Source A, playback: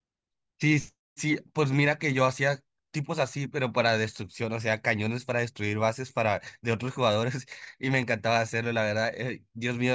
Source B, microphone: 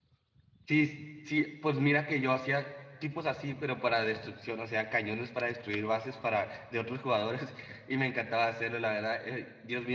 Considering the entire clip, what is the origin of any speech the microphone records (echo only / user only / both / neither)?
echo only